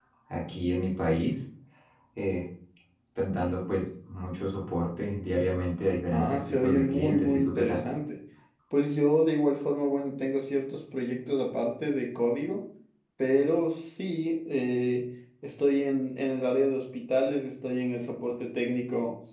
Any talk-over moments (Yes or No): Yes